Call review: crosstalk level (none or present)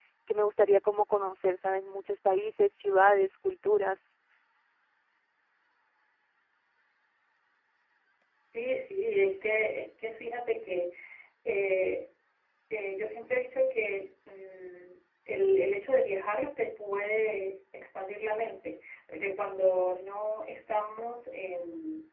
none